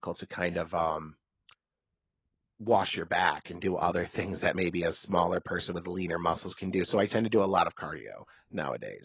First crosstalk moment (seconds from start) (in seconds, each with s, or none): none